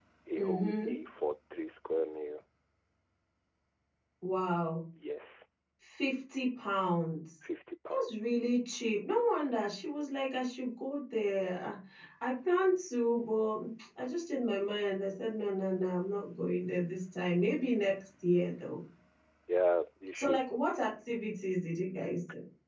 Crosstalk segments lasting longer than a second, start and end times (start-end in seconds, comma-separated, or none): none